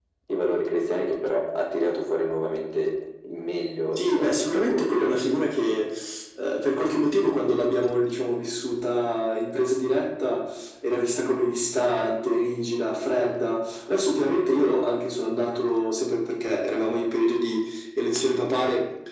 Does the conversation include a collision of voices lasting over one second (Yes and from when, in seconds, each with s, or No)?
Yes, from 4.0 s